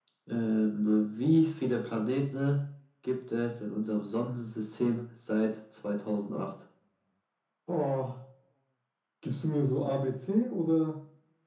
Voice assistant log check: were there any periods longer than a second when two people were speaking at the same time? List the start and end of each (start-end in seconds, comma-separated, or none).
none